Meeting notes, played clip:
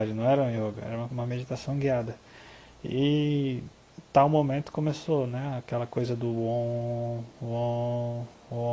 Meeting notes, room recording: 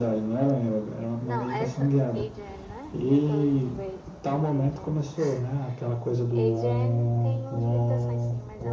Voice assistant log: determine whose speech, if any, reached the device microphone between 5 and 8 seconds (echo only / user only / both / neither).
both